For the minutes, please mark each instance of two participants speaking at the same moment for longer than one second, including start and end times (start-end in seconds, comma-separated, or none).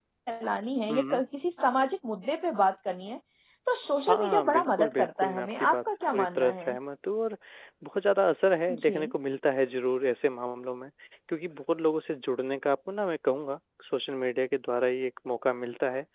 4.1-6.8